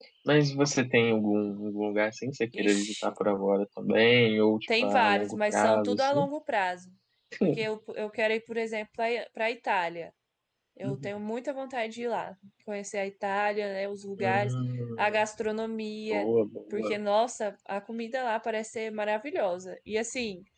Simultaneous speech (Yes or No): Yes